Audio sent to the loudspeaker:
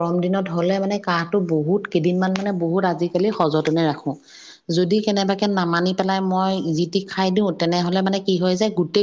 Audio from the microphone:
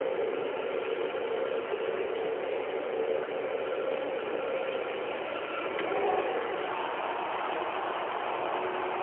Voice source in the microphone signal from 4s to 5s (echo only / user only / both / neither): neither